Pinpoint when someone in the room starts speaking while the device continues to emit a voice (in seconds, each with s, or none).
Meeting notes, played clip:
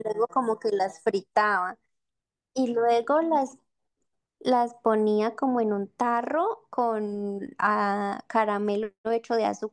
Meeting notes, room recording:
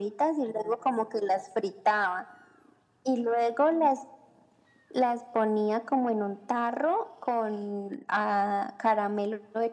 none